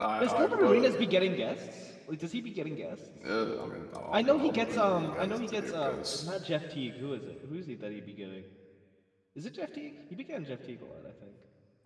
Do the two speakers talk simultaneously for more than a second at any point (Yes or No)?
Yes